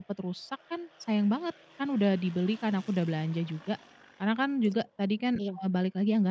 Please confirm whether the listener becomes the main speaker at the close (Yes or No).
No